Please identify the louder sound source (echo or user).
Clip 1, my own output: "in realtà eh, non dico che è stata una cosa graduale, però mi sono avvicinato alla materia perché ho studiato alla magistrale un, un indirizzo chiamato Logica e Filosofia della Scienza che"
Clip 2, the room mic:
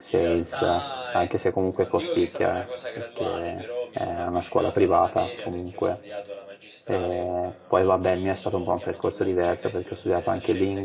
user